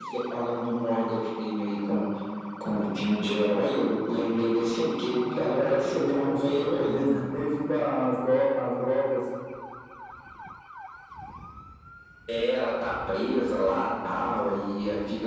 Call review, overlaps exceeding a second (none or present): present